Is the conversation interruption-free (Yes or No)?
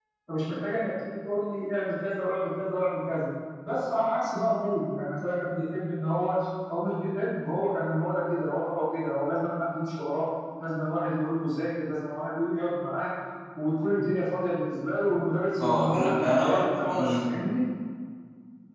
No